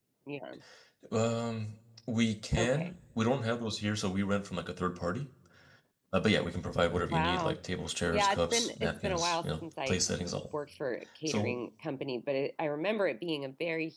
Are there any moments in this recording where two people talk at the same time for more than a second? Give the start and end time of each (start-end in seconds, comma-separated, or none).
8.1-10.0